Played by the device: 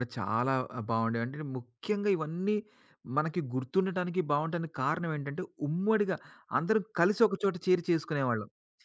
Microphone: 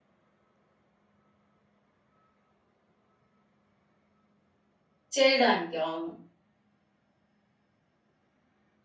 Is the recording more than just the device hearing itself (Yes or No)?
Yes